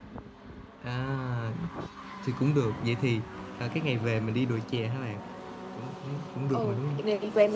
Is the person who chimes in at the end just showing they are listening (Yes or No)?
No